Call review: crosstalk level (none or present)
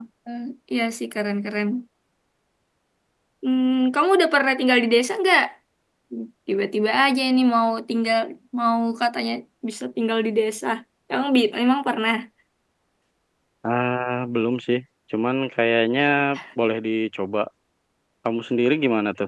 none